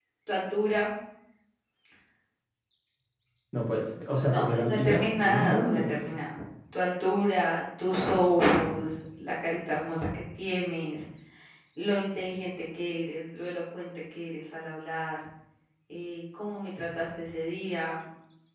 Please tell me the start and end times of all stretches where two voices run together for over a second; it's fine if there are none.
4.2-6.2

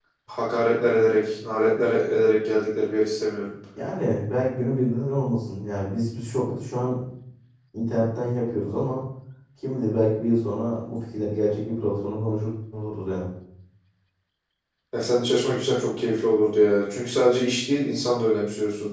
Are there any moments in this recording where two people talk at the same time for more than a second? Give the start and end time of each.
none

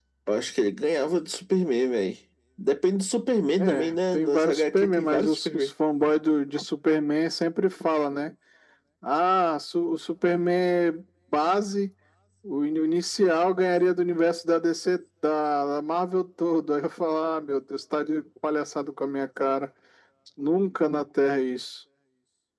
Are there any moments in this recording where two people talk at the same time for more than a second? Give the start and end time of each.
3.6-5.7

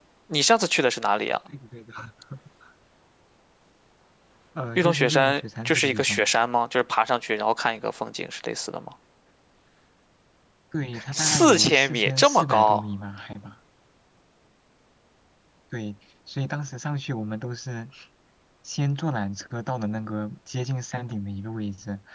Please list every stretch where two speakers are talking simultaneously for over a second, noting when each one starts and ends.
4.8-6.3, 11.1-12.8

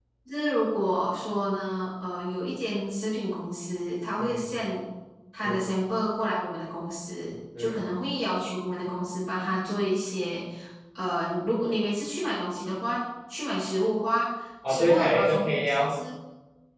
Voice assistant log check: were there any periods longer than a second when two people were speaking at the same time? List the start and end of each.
14.7-16.0

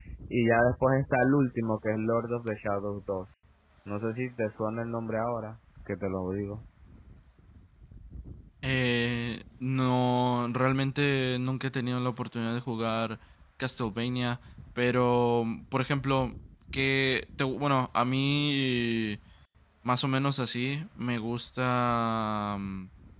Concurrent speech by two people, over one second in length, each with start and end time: none

